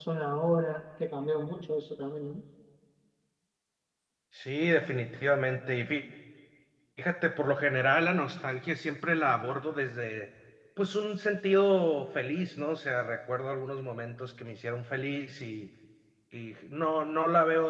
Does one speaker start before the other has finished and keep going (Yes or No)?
No